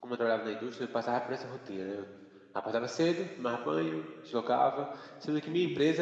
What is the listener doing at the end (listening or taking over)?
listening